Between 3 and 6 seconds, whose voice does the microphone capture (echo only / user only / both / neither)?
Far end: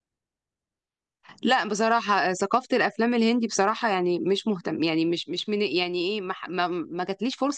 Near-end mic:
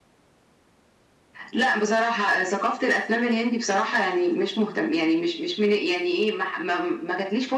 echo only